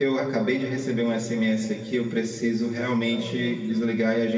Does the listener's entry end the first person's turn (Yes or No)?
No